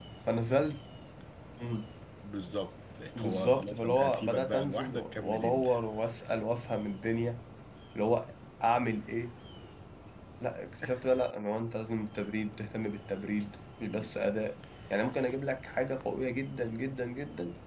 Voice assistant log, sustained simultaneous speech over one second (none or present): present